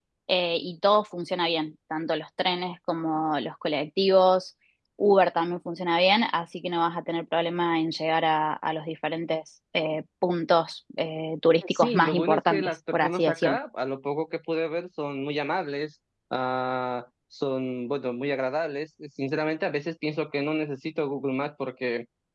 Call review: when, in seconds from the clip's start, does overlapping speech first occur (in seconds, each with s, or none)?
11.6 s